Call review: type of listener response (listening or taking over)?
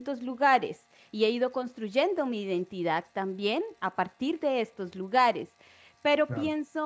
listening